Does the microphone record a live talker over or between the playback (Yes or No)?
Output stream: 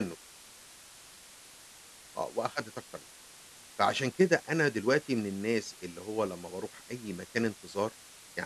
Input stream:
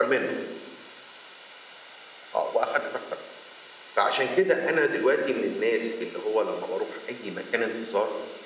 No